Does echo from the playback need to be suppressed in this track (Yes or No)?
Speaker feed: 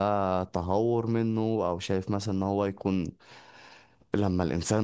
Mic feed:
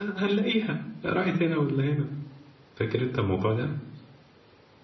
No